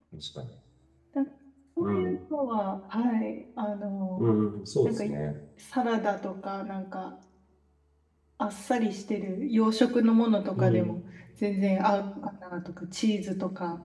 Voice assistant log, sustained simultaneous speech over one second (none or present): none